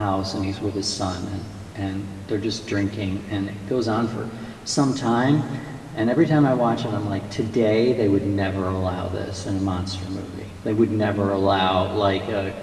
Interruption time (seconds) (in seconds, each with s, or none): none